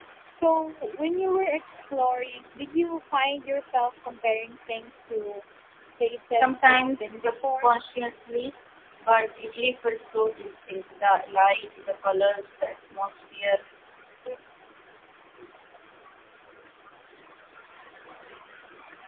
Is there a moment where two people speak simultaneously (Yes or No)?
Yes